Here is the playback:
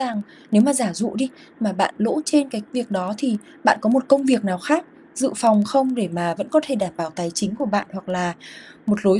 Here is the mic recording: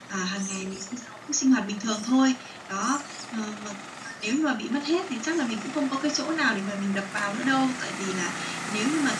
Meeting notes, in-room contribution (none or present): present